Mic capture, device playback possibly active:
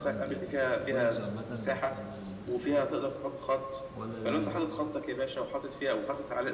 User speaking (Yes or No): Yes